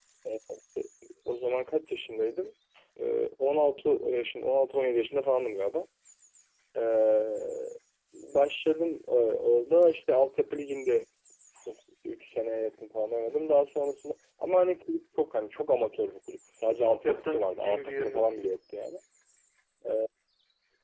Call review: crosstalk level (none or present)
present